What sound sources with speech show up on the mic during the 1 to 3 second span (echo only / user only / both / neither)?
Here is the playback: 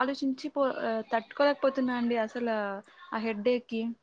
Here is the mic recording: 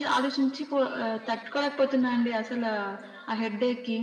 echo only